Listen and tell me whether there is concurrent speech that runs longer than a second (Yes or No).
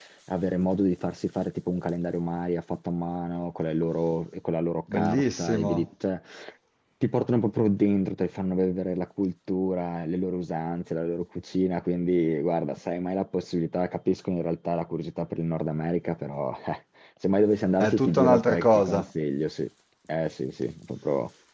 Yes